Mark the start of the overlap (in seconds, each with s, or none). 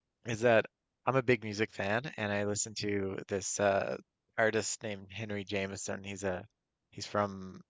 none